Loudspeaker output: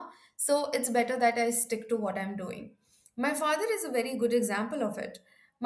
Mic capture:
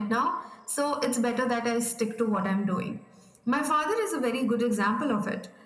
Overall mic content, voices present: echo only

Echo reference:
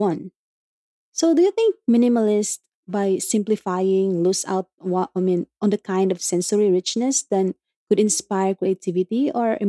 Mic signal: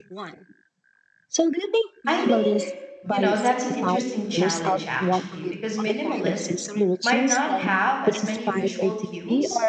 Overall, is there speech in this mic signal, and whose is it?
both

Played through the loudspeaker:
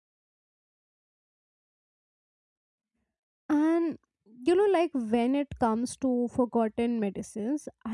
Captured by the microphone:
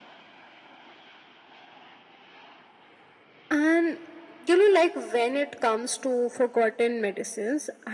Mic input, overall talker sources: echo only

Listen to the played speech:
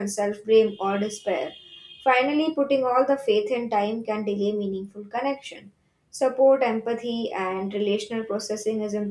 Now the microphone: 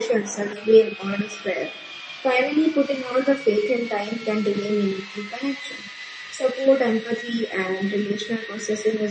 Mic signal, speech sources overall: echo only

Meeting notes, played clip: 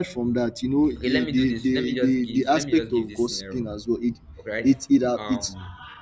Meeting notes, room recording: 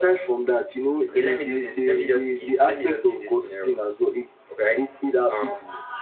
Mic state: echo only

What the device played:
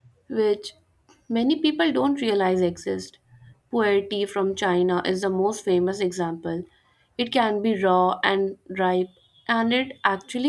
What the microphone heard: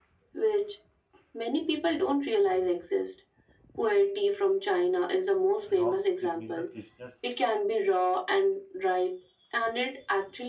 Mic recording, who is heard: both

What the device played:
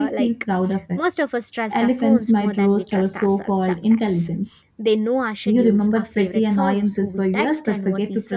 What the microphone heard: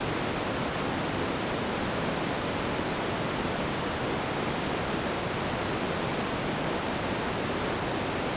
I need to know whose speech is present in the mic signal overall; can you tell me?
neither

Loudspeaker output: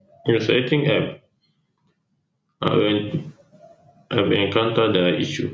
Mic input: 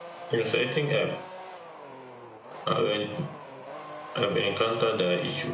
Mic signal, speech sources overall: echo only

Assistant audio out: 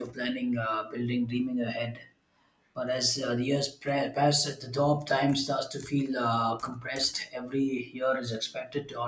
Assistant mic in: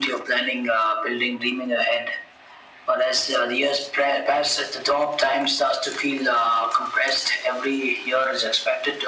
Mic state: echo only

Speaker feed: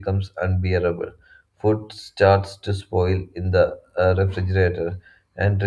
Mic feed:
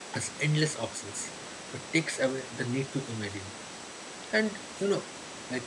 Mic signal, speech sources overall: user only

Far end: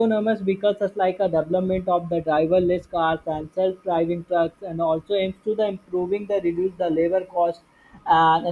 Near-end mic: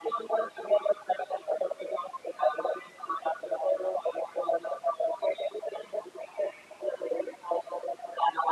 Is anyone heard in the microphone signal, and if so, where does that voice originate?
echo only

